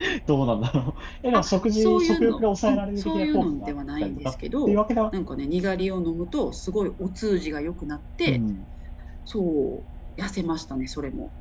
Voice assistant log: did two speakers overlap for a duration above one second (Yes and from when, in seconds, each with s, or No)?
Yes, from 1.3 s